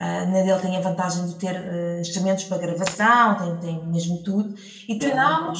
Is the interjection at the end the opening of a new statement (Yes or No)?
No